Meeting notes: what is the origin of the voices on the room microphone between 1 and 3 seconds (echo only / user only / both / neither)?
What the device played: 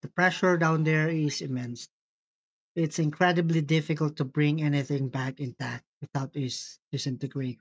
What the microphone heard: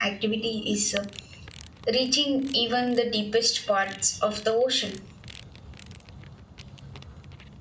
user only